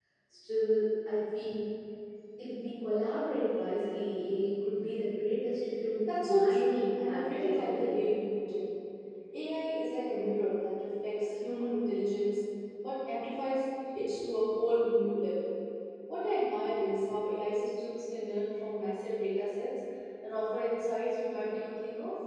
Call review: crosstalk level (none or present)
present